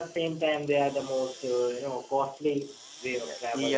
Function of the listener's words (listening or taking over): taking over